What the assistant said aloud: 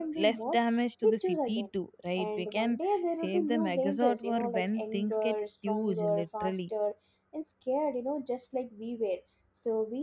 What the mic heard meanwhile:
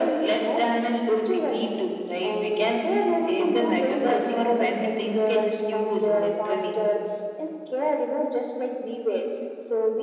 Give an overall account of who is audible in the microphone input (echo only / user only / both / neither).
echo only